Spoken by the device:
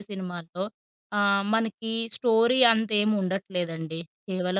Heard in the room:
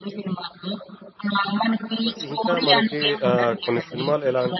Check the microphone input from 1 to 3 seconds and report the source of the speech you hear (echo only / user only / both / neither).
both